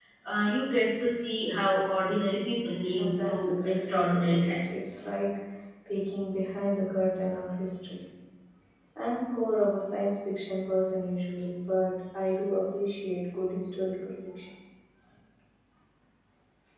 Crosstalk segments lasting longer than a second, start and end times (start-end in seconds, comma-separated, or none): 2.9-4.9